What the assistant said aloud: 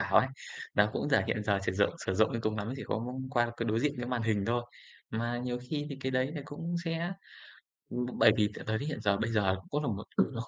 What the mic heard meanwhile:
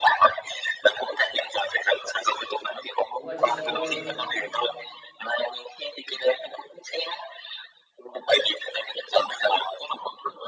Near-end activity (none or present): present